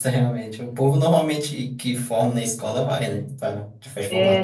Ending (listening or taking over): taking over